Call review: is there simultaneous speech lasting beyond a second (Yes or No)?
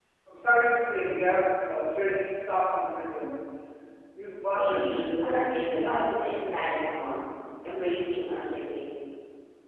Yes